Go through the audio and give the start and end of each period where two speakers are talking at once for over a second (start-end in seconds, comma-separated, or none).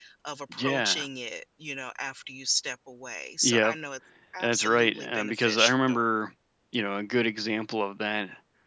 4.4-5.7